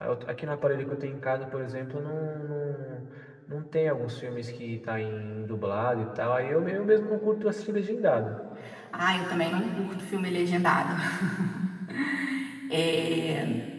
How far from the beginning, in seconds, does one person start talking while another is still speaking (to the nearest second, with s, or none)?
none